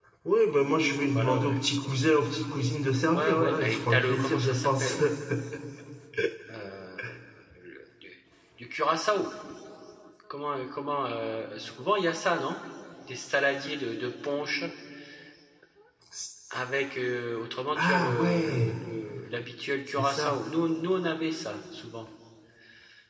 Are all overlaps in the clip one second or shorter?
No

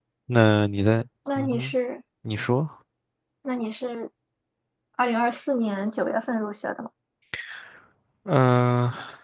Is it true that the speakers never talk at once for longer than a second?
Yes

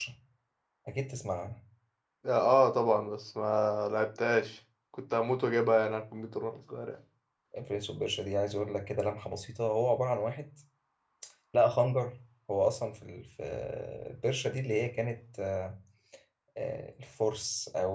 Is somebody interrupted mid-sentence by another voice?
No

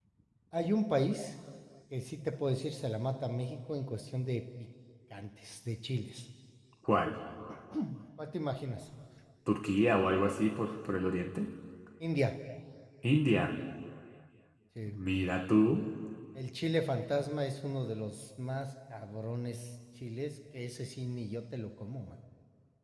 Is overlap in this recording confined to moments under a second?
Yes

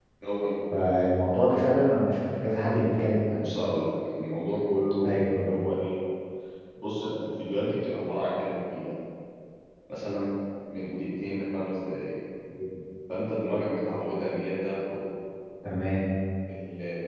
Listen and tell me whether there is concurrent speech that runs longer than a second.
No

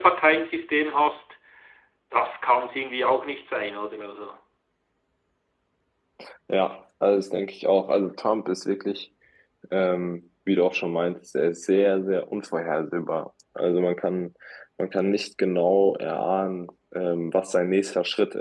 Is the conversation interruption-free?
Yes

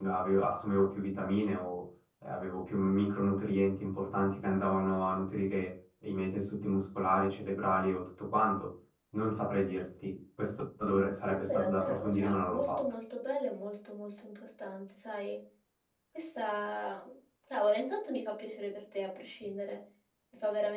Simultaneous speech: Yes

